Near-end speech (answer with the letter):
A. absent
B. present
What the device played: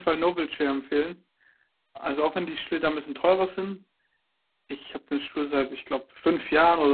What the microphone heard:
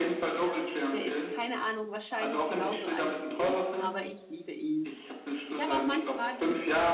B